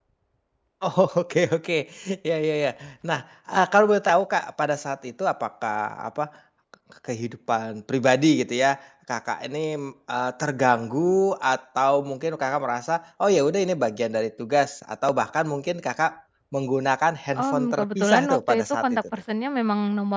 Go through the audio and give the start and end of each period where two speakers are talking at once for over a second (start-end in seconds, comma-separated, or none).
17.4-19.0